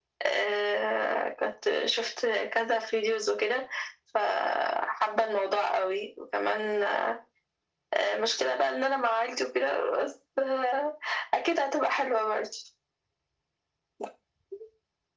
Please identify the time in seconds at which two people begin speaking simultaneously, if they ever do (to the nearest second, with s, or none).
none